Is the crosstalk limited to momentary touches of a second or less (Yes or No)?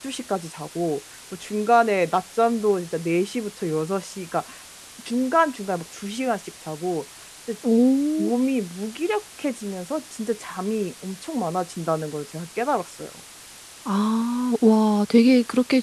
Yes